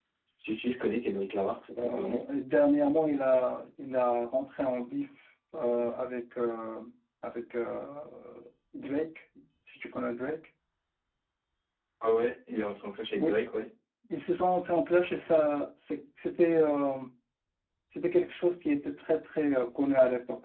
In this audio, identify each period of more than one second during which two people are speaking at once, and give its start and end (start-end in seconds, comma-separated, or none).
none